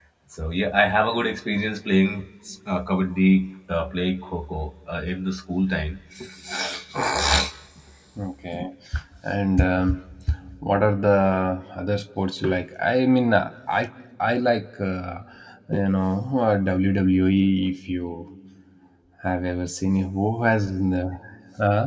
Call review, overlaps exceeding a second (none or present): none